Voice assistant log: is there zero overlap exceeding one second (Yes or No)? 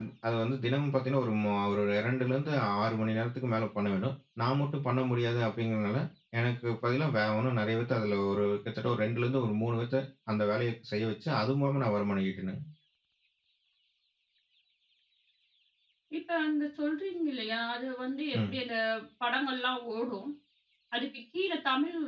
Yes